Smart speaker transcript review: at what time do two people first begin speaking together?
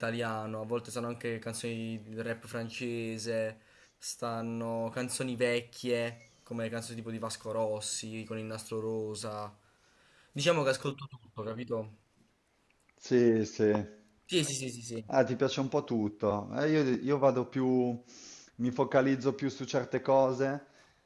none

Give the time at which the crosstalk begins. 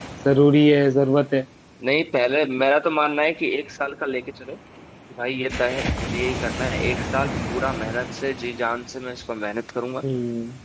none

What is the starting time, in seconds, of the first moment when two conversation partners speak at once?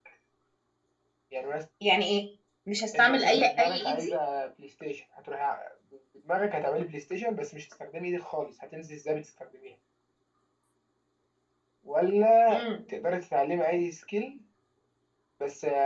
3.0 s

